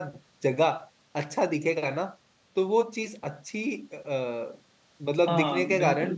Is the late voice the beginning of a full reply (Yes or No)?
Yes